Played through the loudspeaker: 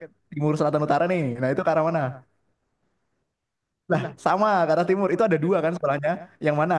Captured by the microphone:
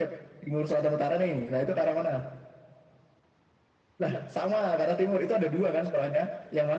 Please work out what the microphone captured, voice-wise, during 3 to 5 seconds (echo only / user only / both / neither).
echo only